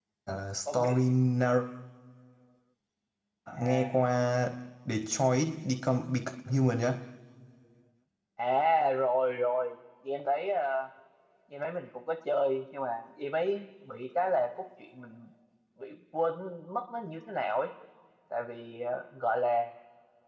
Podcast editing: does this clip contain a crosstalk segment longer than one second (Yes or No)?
No